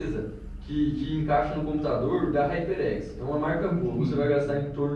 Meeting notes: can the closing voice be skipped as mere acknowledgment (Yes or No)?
Yes